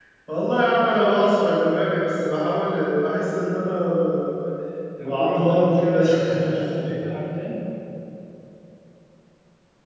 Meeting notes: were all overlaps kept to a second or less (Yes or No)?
No